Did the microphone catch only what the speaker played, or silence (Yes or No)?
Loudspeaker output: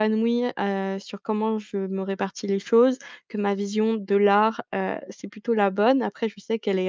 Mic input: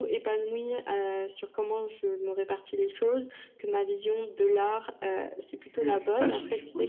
No